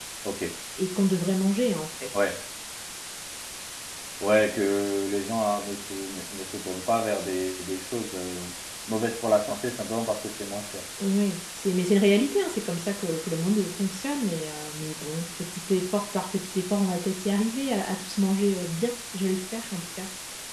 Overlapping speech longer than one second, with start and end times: none

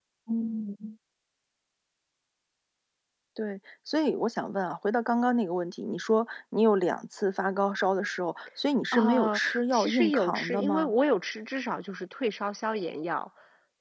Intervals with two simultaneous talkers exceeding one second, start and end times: 8.9-10.9

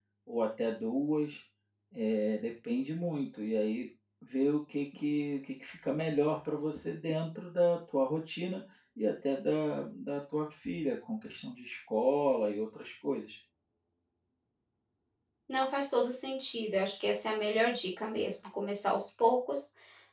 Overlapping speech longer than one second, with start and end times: none

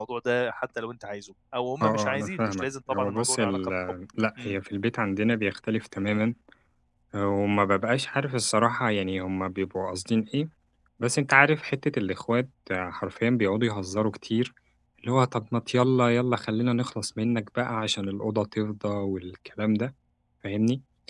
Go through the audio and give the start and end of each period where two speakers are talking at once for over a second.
1.8-3.7

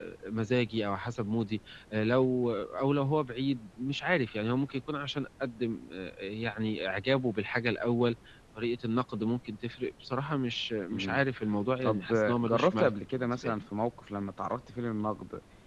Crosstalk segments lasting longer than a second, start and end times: 11.8-13.5

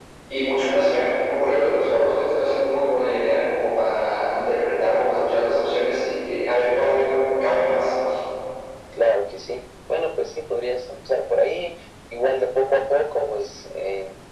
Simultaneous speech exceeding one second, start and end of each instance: none

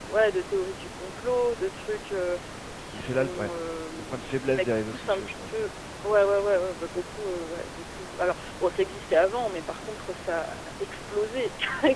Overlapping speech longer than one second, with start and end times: 4.1-5.5

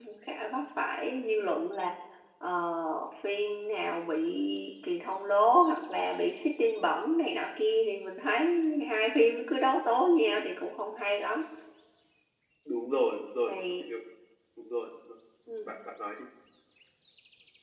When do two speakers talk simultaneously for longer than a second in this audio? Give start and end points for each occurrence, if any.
none

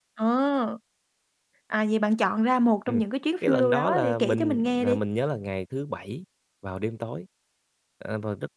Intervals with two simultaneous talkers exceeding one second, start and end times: 3.4-5.0

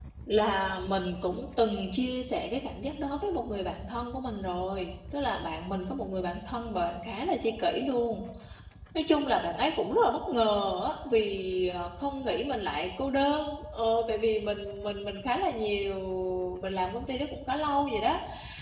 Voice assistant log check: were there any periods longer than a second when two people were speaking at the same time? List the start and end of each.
none

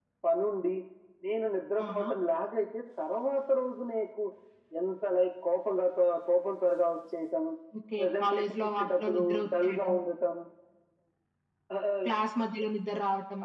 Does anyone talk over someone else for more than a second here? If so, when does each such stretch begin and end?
8.0-9.9

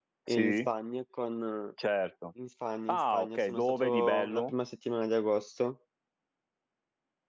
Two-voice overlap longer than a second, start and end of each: 2.9-4.5

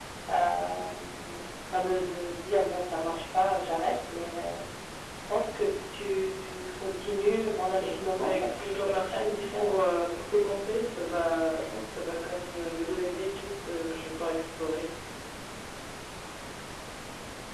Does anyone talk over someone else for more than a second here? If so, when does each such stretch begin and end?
7.8-9.8

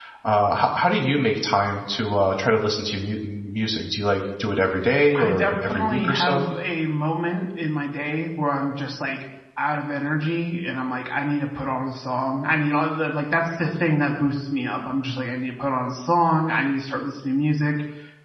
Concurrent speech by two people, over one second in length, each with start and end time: 5.2-6.5

